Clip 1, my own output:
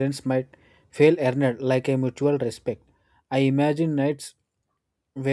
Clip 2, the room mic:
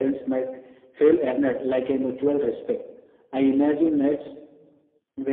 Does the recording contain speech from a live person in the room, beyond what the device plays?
No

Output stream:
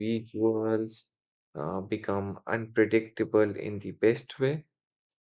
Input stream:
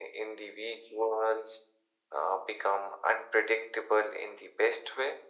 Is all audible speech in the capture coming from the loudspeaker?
Yes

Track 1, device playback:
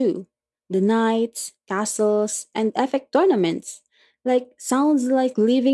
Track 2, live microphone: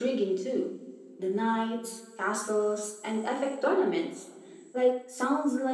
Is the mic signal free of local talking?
Yes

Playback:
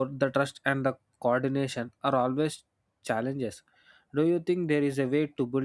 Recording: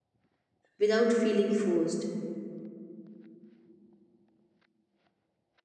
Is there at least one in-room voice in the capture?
Yes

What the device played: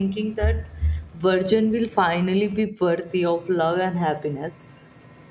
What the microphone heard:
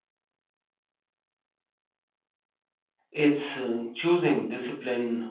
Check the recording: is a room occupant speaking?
Yes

